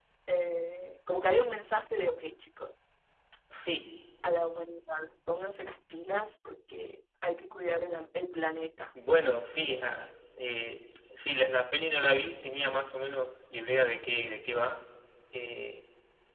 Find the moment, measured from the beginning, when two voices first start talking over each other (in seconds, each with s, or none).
none